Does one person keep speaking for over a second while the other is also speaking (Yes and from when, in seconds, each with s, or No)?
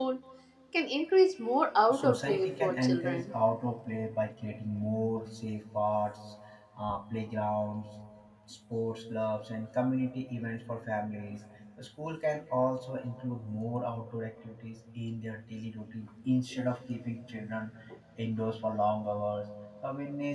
Yes, from 1.9 s